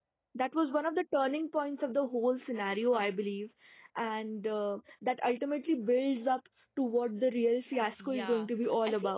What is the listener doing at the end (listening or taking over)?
taking over